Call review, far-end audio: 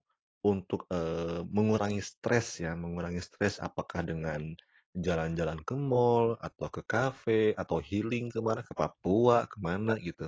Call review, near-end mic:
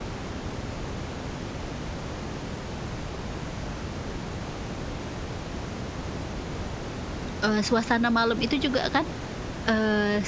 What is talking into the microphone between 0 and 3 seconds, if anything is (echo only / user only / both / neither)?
neither